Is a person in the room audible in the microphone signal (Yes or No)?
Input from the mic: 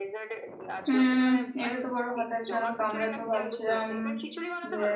Yes